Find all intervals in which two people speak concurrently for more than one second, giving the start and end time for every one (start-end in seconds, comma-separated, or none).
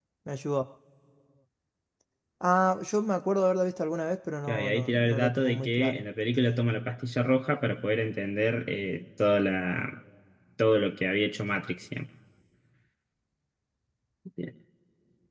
4.5-6.0